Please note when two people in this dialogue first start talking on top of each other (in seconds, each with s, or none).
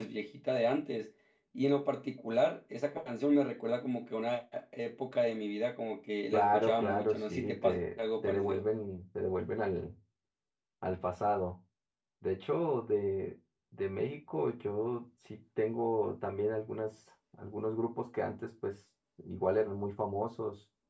6.3 s